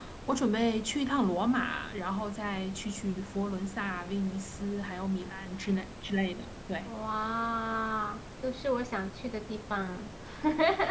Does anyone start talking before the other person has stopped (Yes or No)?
No